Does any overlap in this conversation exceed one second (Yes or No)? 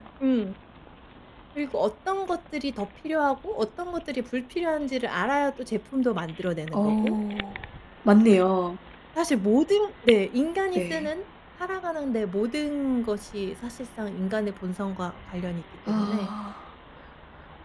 No